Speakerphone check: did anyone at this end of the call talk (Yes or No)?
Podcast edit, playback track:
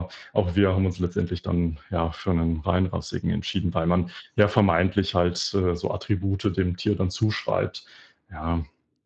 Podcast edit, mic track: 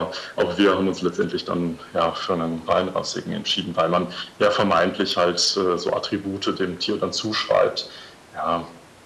No